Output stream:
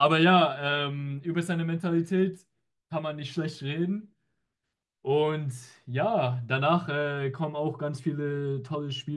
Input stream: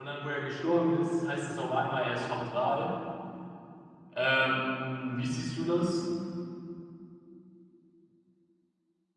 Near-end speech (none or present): present